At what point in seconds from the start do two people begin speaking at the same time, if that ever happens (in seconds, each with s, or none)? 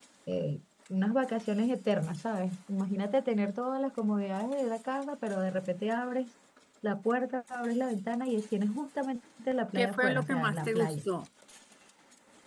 9.8 s